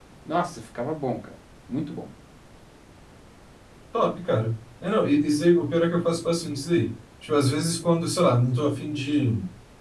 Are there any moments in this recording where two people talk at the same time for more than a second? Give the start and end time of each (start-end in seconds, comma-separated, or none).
none